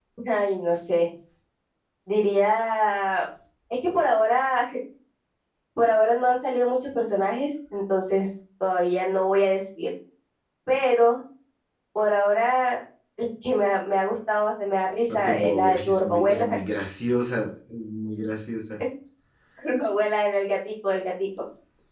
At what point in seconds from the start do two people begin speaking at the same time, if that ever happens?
15.1 s

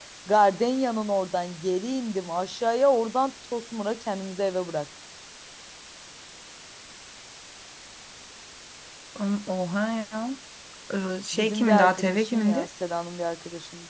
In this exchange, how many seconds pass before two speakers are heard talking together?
11.3 s

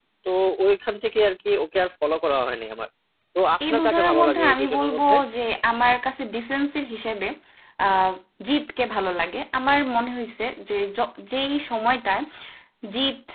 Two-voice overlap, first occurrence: 3.7 s

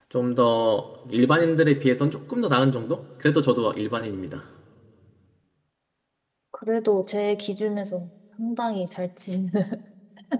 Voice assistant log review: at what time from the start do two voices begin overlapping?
none

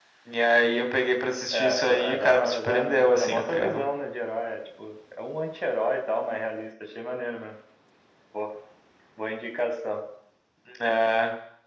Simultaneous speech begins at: 1.5 s

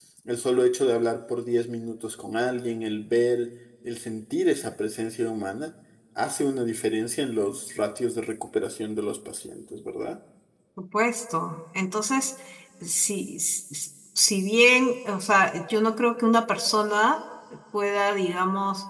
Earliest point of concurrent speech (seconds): none

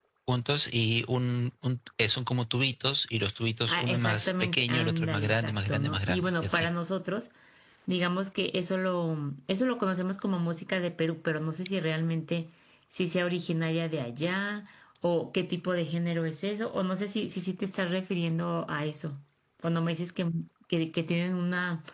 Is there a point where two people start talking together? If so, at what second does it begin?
3.7 s

